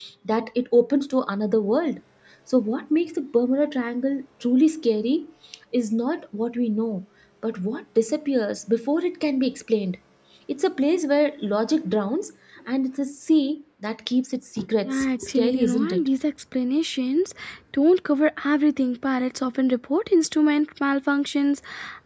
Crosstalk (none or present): present